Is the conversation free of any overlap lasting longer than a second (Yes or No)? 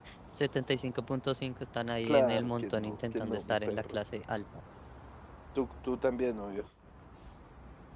No